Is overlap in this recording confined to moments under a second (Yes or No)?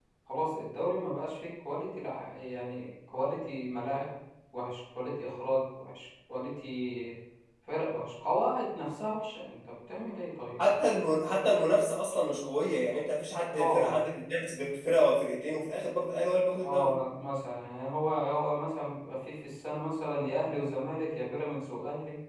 Yes